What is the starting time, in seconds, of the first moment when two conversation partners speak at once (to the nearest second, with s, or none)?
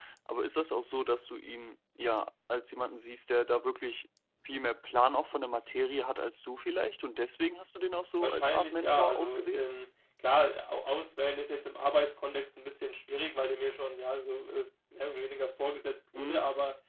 8 s